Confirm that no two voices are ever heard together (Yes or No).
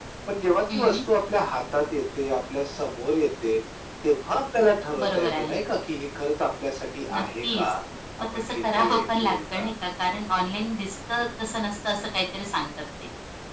No